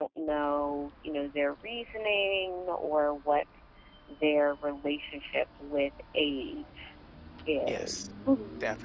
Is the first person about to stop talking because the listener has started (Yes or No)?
Yes